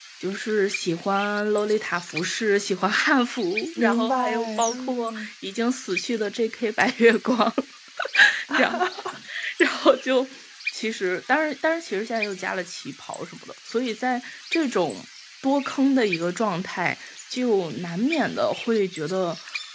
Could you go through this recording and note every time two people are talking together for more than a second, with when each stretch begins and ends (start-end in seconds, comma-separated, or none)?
3.8-5.3